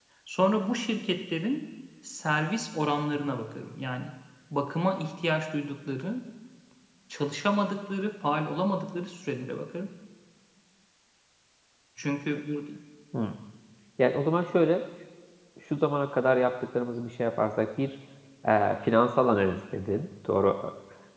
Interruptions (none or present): none